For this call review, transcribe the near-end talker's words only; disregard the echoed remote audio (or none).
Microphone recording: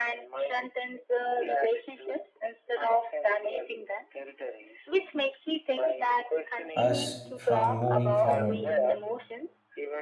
us from moving forward